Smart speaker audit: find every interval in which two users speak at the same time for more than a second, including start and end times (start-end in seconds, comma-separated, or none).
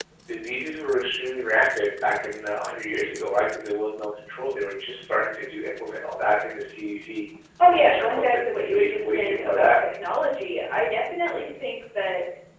7.6-9.7